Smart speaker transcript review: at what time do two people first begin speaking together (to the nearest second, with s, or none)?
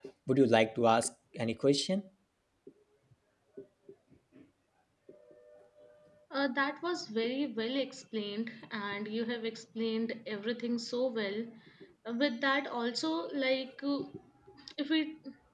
none